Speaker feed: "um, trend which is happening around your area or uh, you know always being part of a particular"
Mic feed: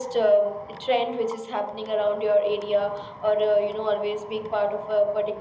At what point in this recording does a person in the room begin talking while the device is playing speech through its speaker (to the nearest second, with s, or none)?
none